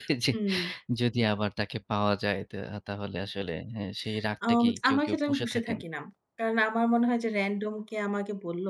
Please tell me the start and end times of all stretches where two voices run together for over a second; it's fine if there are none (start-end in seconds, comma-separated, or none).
4.5-5.8